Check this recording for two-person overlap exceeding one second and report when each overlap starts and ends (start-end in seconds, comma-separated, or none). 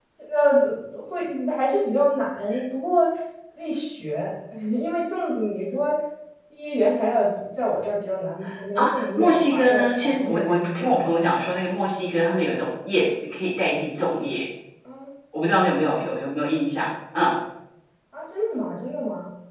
8.8-11.6